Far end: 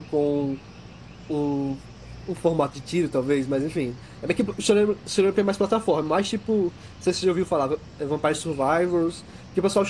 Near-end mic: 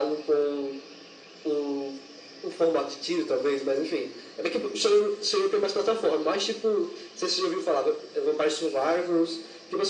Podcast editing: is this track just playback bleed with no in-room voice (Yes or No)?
Yes